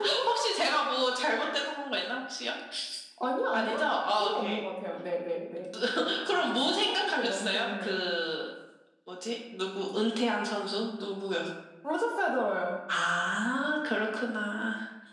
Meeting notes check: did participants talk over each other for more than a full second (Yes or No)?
Yes